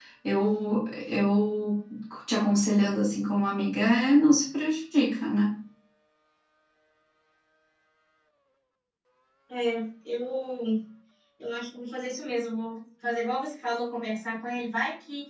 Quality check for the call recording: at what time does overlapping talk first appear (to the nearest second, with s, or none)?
none